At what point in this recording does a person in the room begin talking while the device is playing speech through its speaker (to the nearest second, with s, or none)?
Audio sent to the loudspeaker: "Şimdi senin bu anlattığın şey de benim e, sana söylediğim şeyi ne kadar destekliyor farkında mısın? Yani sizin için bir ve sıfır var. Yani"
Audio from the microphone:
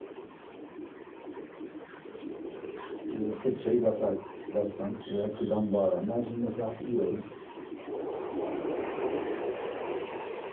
3 s